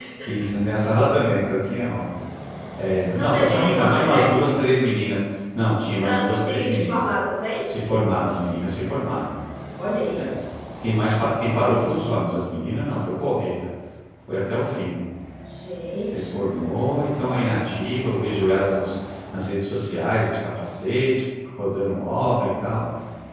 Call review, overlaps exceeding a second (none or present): present